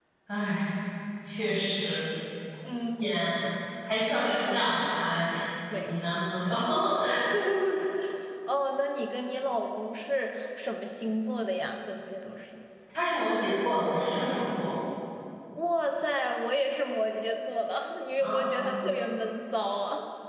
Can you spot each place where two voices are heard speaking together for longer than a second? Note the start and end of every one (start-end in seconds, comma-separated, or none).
none